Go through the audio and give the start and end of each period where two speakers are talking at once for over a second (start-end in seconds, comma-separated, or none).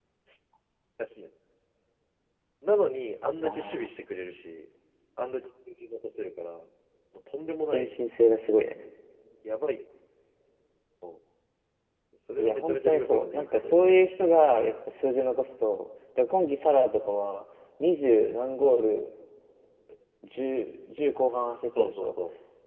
12.4-13.9